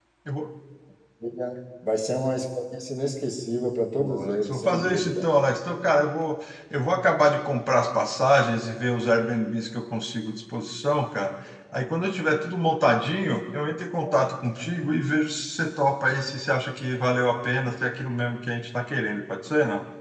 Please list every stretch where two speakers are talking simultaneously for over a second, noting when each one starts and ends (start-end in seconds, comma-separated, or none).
4.0-5.2